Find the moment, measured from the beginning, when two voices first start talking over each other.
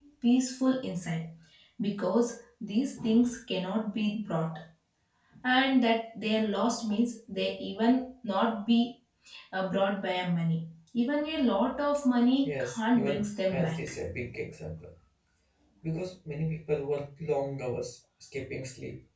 12.4 s

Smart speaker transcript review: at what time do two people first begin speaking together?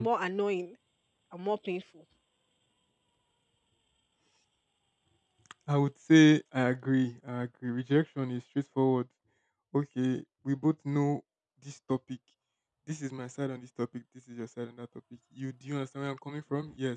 none

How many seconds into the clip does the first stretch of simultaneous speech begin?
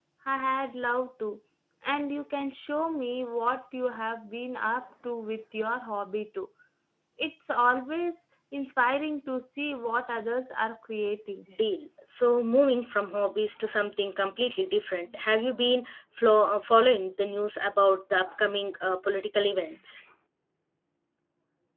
none

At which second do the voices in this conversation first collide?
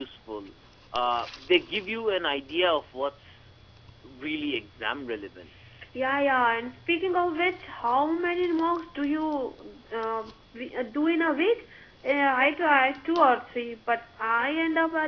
none

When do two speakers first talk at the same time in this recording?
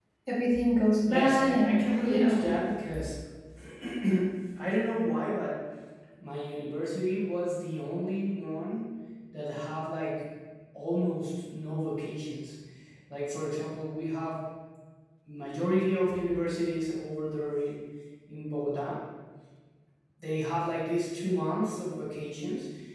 1.1 s

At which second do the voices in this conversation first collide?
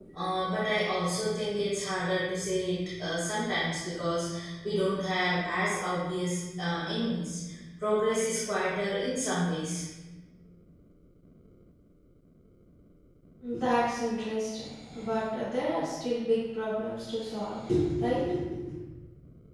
none

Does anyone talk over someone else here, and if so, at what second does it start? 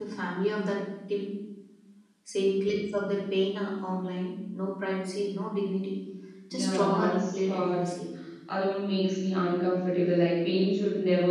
6.5 s

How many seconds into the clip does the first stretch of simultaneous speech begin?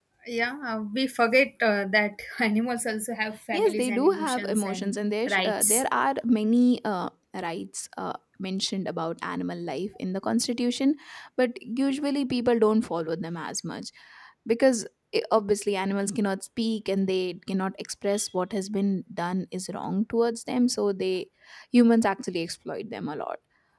3.5 s

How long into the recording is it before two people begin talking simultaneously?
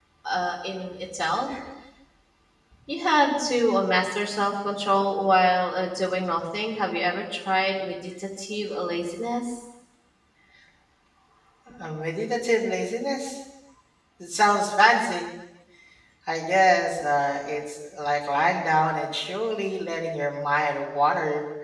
none

